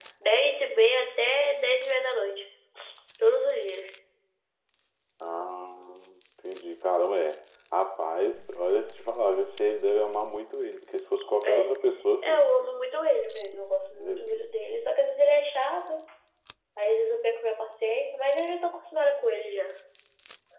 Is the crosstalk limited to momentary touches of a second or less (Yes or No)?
Yes